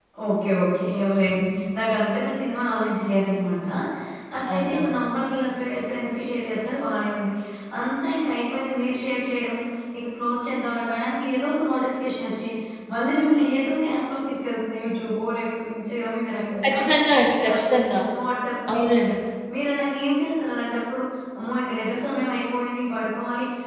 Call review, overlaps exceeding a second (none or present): none